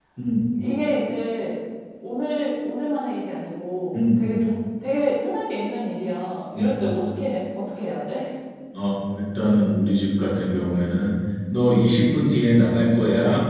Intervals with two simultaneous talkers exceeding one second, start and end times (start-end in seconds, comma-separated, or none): none